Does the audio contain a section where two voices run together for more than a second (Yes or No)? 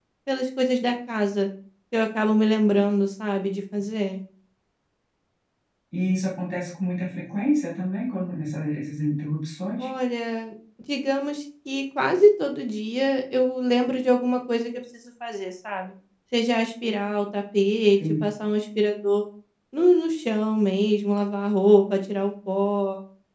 No